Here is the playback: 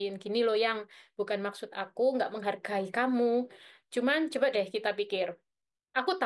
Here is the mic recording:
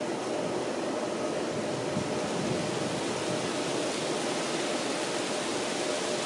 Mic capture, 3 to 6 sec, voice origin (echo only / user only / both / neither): neither